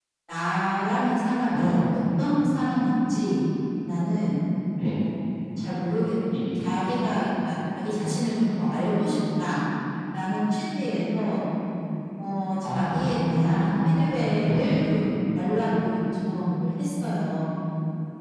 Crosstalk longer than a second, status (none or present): present